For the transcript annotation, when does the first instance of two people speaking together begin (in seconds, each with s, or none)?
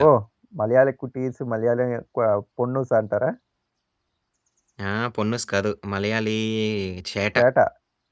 none